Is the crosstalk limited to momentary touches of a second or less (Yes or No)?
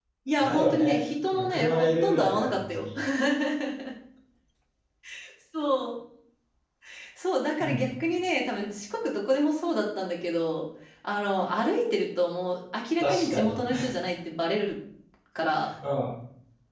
No